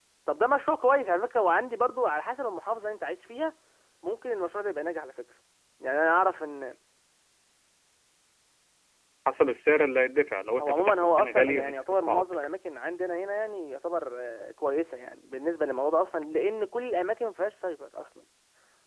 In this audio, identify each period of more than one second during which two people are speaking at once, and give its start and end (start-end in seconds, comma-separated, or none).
10.6-12.3